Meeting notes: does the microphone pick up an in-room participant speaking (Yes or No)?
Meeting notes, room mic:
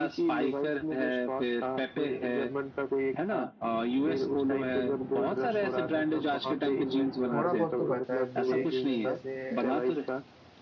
Yes